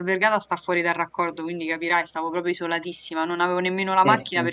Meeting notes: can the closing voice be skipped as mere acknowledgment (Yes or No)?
Yes